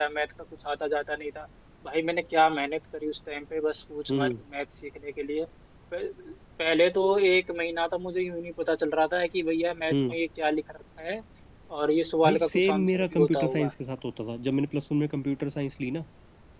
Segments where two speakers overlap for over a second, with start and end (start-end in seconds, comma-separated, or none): 12.2-13.7